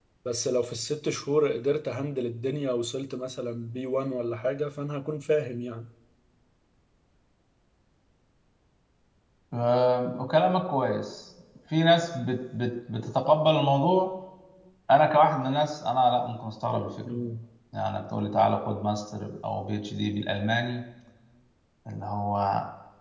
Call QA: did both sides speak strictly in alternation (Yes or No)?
Yes